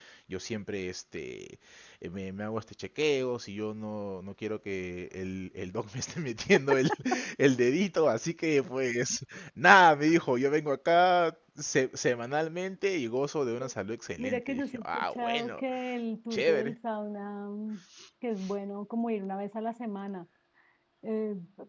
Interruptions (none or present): present